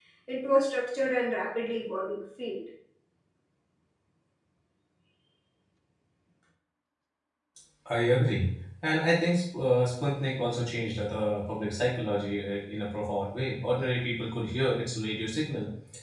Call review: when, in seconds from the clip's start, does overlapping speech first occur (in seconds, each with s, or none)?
none